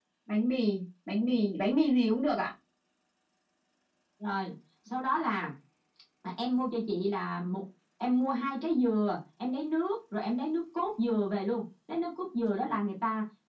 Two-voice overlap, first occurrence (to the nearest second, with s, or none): none